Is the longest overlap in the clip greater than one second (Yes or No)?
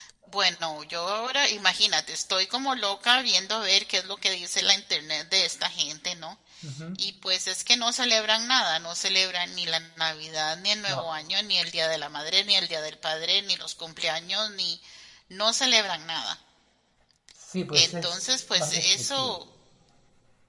Yes